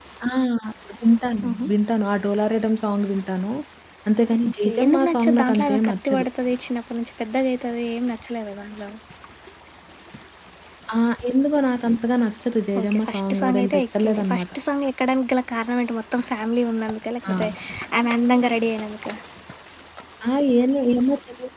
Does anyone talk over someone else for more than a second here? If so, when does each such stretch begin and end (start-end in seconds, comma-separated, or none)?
4.4-6.3, 12.8-14.4